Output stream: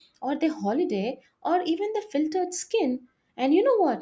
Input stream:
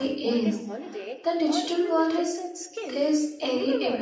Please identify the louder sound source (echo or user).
user